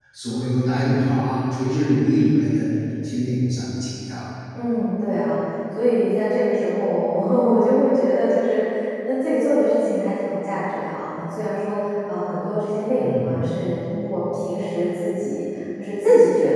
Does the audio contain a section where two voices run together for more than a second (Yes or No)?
No